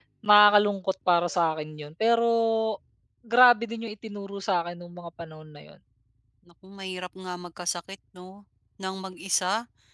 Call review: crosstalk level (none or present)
none